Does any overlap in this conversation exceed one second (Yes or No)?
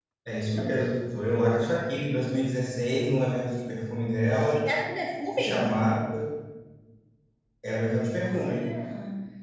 No